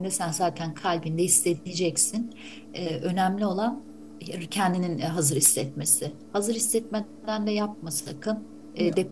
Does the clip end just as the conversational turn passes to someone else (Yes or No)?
No